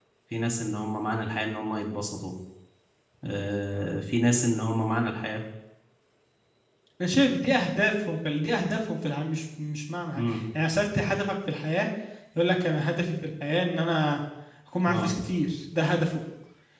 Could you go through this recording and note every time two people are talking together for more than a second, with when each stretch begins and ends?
none

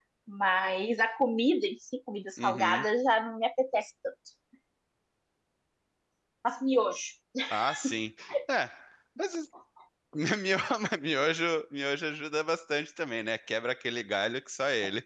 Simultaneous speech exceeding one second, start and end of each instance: none

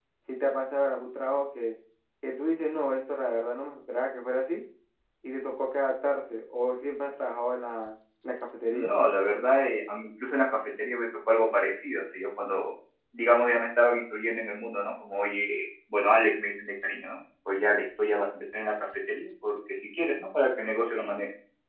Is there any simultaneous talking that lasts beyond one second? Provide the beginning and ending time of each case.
none

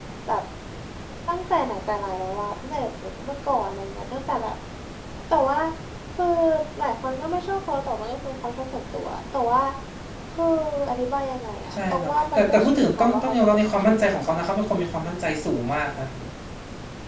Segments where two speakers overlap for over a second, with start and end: 11.7-14.4

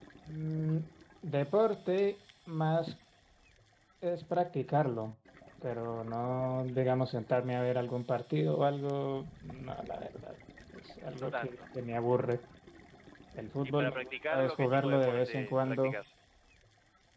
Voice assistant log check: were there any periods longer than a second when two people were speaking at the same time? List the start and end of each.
13.6-15.9

